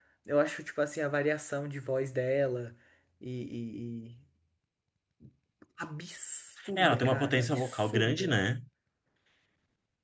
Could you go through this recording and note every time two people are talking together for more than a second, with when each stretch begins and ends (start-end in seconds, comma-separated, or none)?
6.7-8.3